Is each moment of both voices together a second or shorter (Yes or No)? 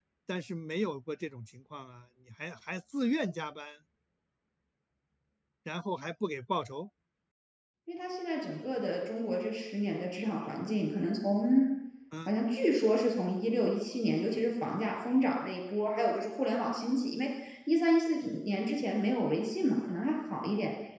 Yes